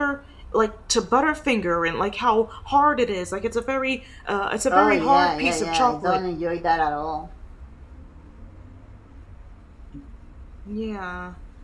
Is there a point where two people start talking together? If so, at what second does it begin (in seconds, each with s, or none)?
4.7 s